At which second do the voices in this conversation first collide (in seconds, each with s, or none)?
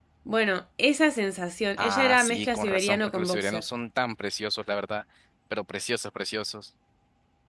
1.8 s